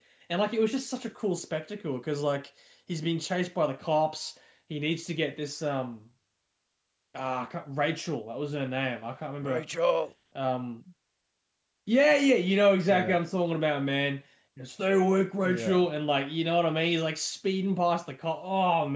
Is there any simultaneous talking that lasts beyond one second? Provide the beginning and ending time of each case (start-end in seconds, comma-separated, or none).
none